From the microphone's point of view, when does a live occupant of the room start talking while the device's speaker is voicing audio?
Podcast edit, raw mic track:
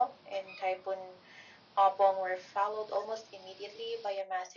none

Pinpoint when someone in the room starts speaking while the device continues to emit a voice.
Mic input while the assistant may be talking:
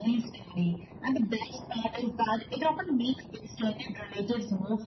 none

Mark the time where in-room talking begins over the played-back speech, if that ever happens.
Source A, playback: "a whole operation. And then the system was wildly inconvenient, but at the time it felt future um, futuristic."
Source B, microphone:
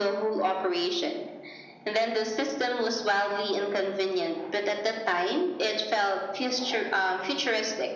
none

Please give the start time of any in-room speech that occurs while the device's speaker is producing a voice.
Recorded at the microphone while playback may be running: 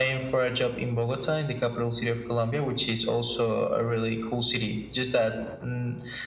none

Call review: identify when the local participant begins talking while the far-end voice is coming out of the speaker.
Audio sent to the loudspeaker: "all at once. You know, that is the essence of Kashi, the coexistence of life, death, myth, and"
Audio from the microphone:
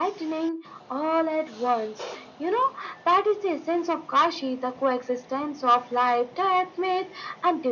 none

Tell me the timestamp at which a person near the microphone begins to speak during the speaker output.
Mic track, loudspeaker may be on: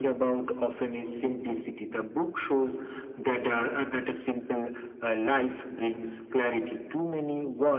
none

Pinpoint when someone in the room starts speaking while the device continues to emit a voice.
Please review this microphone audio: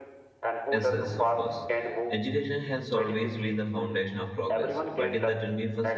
0.7 s

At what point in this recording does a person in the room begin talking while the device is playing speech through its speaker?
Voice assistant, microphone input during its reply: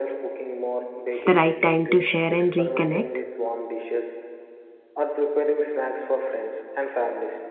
1.2 s

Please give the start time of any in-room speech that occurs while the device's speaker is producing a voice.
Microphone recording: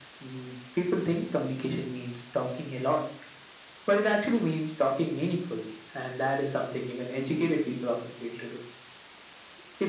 none

